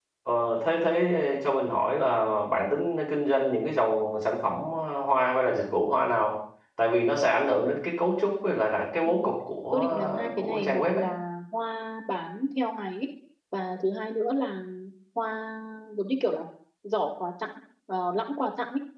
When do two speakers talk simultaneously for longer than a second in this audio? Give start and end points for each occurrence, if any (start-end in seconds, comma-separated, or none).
9.7-11.1